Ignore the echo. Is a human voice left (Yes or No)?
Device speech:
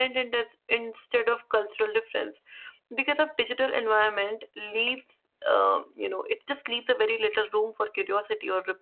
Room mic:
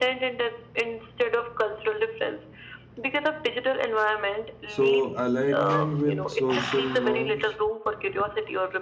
Yes